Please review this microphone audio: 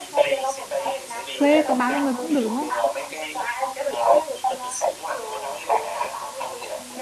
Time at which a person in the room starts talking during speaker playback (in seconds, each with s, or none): 1.3 s